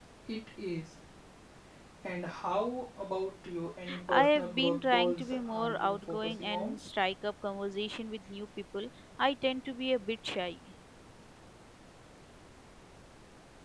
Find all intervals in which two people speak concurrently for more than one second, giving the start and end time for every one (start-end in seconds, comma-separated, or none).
4.1-6.8